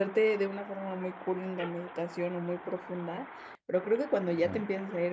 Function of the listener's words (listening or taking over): listening